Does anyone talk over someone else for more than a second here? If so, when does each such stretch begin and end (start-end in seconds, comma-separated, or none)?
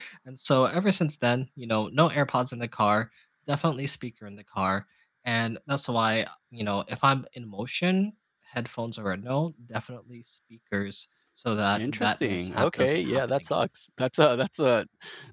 11.8-13.4